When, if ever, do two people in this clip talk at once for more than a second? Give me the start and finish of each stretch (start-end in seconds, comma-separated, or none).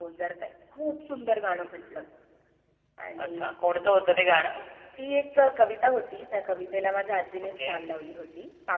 none